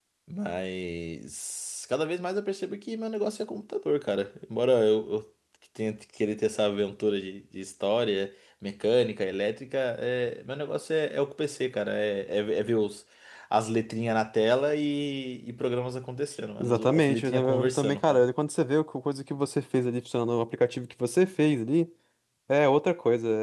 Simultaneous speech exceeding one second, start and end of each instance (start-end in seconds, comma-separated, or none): 16.6-18.3